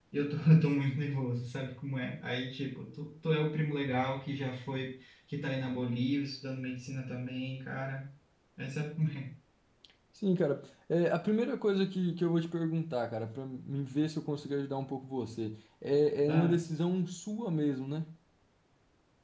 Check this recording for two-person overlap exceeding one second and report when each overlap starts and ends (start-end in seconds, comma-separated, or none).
none